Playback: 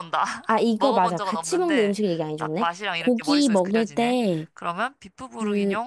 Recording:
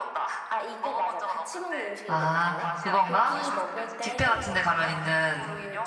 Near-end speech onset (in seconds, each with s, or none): 2.1 s